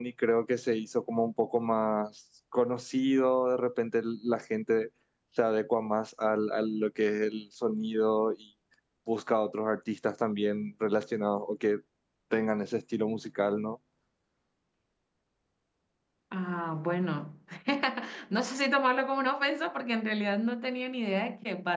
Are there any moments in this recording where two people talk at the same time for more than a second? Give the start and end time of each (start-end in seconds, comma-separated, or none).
none